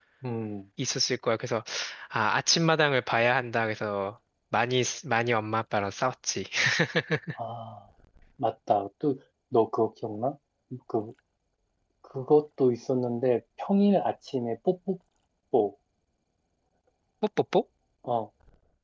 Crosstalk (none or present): none